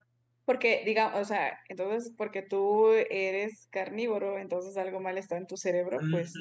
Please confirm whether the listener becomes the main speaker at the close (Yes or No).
Yes